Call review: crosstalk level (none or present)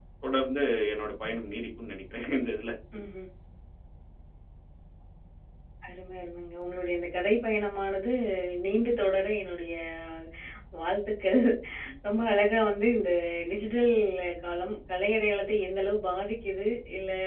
none